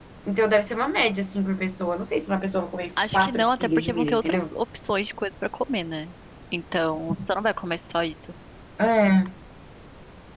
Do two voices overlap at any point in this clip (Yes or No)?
Yes